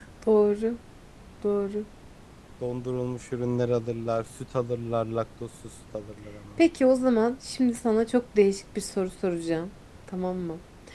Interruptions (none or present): none